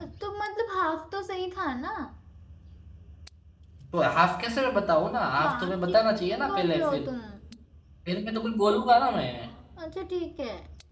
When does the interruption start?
5.4 s

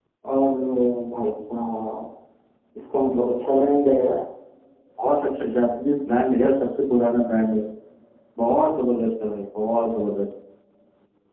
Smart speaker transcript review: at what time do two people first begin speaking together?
none

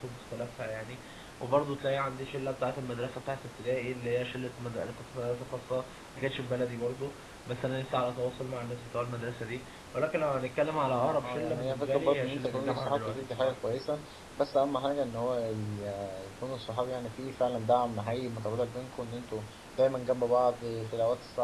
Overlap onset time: 10.9 s

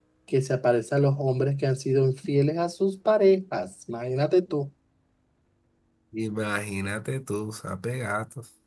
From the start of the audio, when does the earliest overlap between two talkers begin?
none

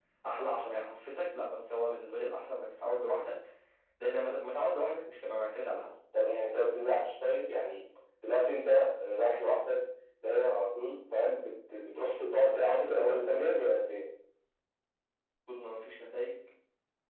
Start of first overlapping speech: 11.9 s

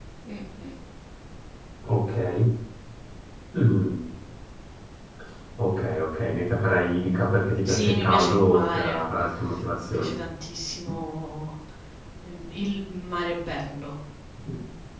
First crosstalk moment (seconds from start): 7.7 s

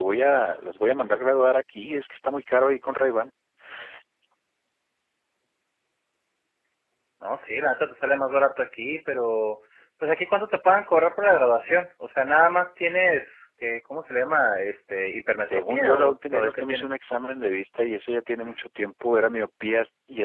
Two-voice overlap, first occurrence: 15.5 s

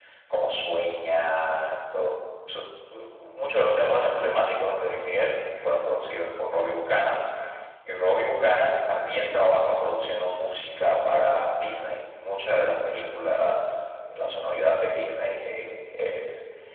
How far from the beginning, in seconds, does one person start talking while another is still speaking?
none

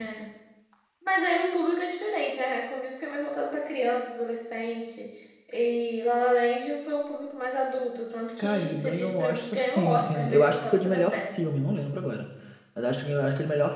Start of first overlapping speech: 8.4 s

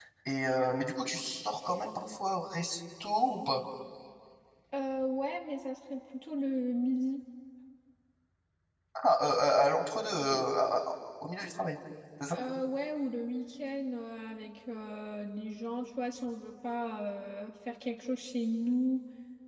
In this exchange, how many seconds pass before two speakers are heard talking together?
none

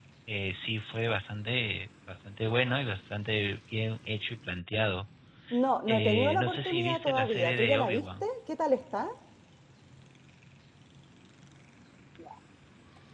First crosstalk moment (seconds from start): 5.9 s

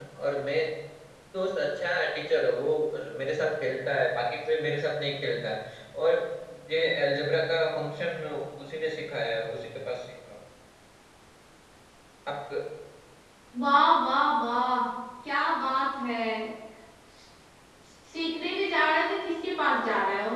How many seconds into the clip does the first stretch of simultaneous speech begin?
none

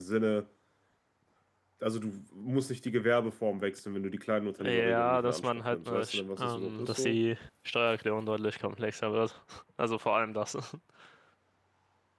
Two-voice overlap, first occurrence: 4.6 s

